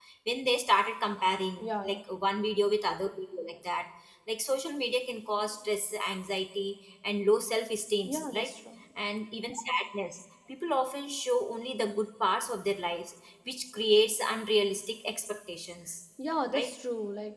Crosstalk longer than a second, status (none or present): none